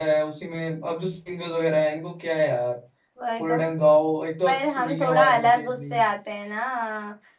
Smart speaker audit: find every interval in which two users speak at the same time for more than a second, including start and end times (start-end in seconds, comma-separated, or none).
4.5-6.0